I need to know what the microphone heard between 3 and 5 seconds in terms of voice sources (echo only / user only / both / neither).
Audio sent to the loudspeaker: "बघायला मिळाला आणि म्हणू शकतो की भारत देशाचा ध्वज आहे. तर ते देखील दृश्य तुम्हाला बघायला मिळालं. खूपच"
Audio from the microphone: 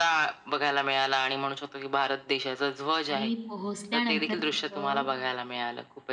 both